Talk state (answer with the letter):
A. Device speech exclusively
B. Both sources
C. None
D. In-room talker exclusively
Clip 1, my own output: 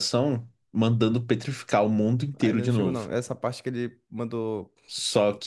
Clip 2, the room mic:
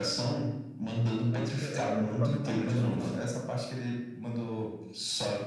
B